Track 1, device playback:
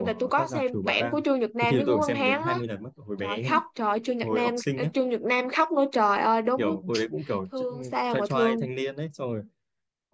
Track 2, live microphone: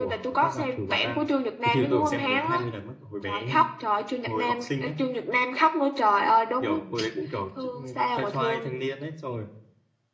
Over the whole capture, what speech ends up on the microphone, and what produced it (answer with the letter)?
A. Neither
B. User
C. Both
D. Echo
D